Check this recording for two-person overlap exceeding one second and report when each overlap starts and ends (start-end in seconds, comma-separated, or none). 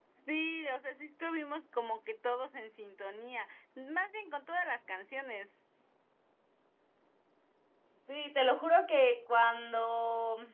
none